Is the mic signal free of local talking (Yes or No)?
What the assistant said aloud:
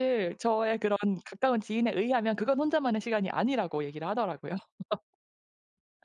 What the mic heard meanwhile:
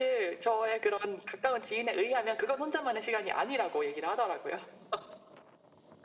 Yes